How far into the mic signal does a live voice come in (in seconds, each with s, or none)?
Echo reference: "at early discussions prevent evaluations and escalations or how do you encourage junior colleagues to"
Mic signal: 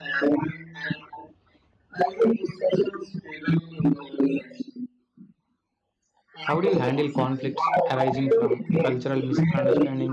6.4 s